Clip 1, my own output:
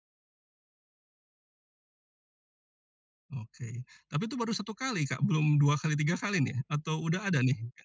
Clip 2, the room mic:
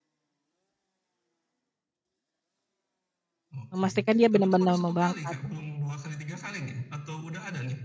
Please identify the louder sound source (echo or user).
user